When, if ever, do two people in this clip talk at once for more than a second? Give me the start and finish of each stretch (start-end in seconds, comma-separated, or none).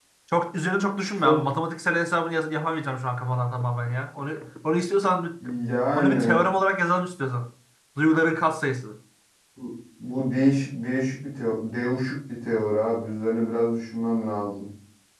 none